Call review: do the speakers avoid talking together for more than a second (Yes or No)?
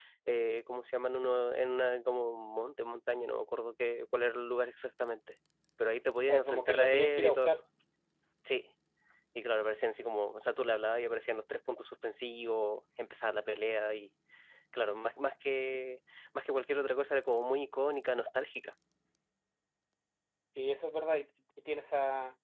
No